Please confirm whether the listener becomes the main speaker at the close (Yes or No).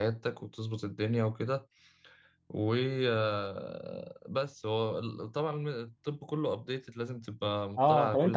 Yes